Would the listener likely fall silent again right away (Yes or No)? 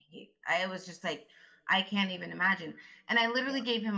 Yes